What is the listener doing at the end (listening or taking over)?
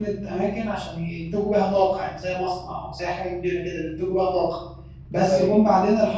listening